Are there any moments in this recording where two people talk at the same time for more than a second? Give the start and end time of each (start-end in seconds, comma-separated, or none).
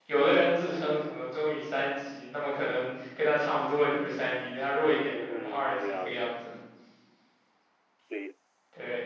5.1-6.3